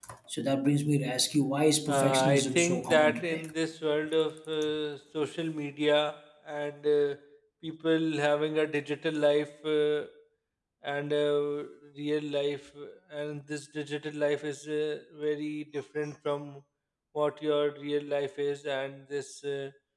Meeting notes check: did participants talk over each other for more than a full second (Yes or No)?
Yes